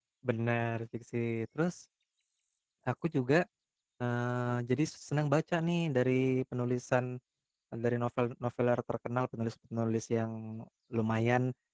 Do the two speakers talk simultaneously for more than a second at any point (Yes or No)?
No